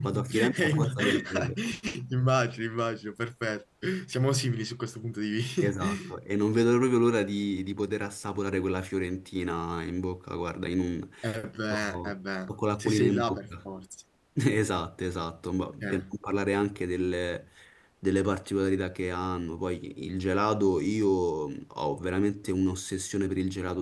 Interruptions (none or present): present